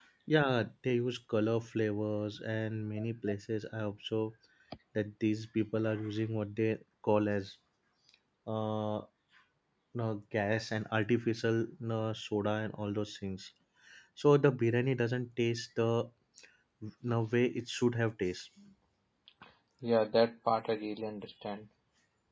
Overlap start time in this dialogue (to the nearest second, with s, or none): none